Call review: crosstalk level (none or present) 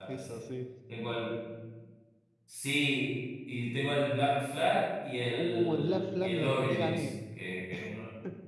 present